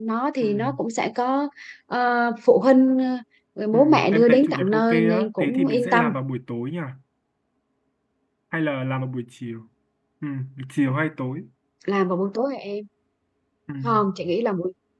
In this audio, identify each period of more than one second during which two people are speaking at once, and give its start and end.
3.7-6.1

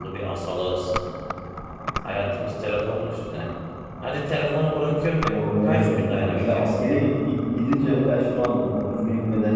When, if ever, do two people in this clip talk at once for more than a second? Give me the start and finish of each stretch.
5.3-6.7

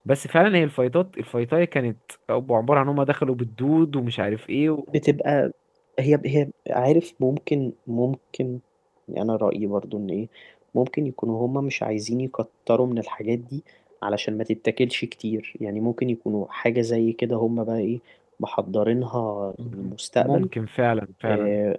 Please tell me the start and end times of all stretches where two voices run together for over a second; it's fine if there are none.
none

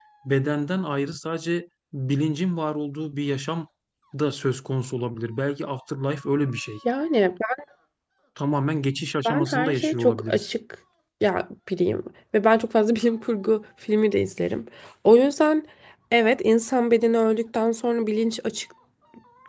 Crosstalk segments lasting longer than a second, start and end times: 9.2-10.5

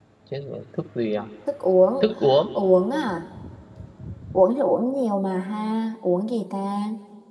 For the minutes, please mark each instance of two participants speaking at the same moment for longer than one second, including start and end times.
none

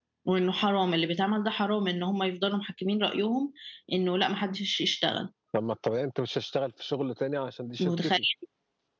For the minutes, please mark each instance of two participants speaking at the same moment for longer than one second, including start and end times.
none

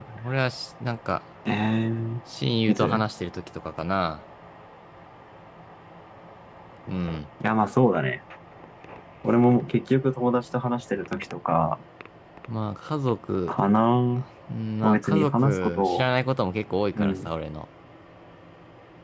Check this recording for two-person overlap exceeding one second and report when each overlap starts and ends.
14.8-16.1

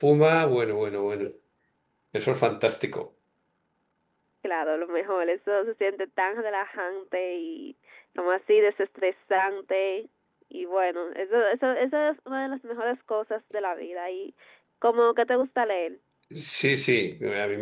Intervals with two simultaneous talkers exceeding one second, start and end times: none

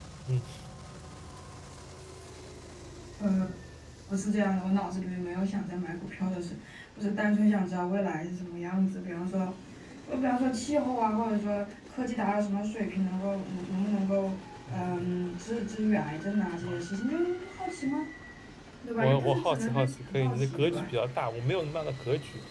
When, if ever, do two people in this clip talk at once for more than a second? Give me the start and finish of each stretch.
19.0-20.8

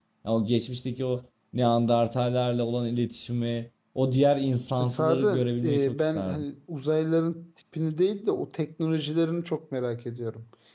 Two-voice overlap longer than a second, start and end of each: 4.9-6.4

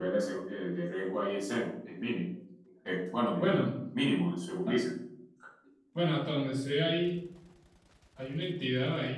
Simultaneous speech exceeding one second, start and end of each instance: none

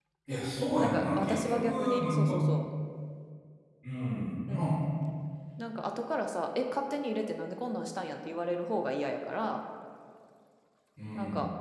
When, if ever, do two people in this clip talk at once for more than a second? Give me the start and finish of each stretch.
0.8-2.3

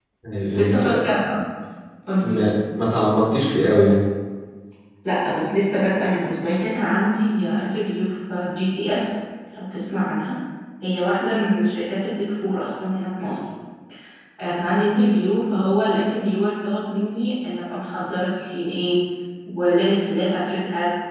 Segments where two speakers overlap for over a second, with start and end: none

